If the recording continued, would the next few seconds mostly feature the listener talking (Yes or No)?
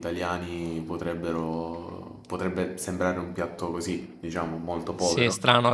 Yes